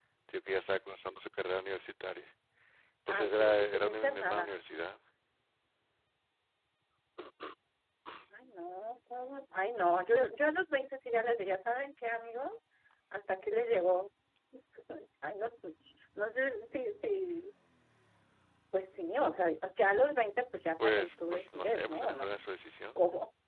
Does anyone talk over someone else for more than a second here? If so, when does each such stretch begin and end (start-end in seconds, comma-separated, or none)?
3.1-4.5, 20.8-22.3